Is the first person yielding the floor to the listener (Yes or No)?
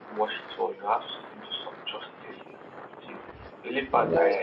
No